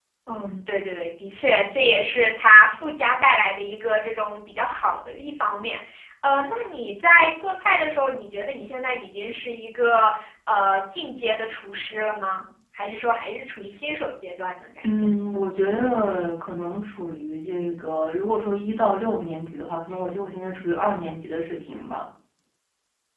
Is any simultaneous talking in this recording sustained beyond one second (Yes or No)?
No